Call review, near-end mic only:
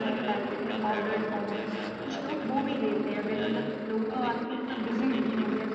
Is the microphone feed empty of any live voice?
Yes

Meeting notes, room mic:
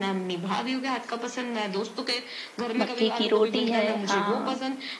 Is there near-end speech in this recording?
Yes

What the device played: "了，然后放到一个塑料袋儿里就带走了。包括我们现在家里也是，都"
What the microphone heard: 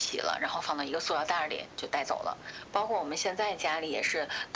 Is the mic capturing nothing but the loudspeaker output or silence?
Yes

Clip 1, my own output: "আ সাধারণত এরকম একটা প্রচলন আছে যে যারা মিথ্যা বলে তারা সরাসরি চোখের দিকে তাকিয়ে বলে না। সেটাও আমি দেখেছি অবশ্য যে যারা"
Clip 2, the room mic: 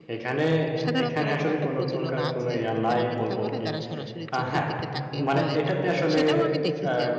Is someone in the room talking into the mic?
Yes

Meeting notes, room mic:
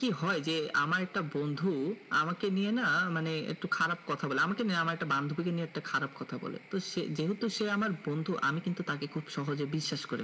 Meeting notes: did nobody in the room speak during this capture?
Yes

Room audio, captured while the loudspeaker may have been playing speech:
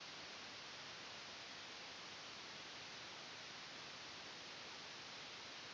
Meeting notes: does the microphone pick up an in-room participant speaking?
No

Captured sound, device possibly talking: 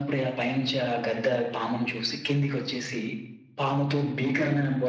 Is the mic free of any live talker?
Yes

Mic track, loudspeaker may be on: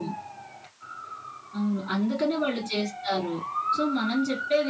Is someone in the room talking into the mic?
No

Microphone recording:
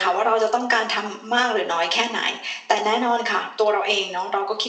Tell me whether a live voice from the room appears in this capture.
No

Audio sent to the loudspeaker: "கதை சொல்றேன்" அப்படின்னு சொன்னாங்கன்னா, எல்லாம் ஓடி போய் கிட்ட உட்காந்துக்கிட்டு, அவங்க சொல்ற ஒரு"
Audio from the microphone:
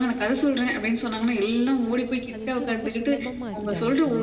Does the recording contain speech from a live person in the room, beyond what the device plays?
Yes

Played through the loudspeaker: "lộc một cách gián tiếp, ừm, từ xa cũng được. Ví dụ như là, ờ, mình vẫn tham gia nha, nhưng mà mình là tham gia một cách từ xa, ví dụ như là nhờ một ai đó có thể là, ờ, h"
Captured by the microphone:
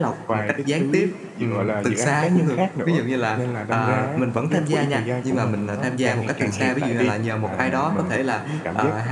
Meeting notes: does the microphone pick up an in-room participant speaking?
Yes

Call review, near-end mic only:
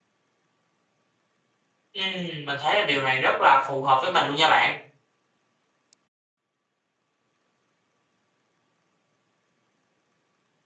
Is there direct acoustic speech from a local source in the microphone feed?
Yes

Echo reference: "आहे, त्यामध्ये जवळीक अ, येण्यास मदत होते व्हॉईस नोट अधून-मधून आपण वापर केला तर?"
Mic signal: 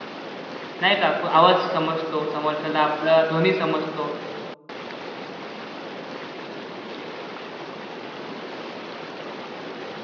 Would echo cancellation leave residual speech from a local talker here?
Yes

